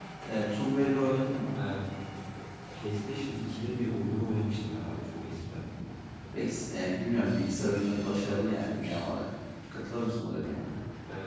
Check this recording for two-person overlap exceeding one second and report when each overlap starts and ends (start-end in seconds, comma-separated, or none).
none